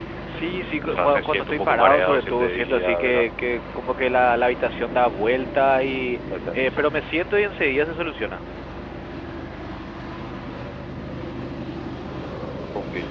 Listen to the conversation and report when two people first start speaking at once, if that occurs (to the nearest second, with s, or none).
1 s